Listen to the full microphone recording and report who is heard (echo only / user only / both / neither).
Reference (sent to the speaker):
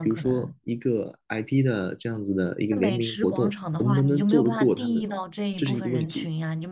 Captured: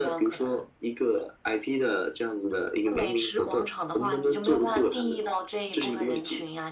echo only